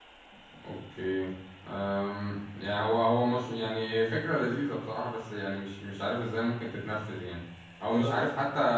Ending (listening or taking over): listening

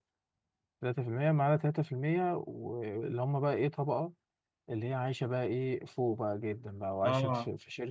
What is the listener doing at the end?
listening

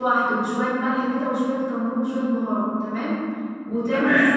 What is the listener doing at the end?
listening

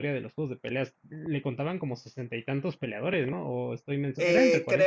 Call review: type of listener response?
taking over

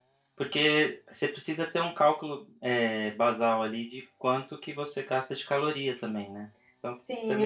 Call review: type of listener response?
taking over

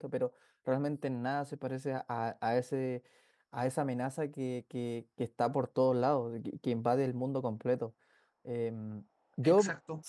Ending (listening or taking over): taking over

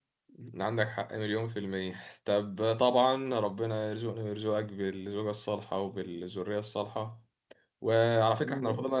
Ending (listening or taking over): listening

